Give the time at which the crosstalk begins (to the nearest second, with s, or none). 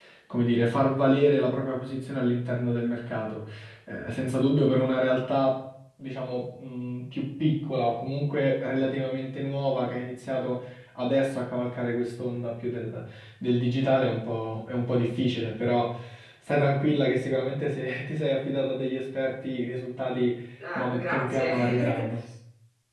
21 s